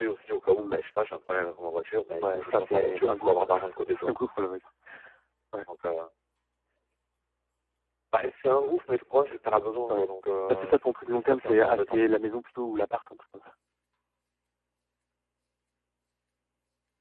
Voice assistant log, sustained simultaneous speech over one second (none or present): present